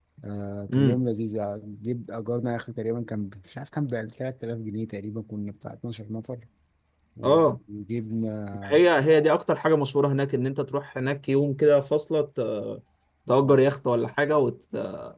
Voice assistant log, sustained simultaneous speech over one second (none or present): none